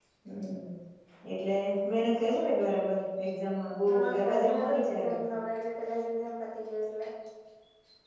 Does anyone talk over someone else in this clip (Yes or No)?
Yes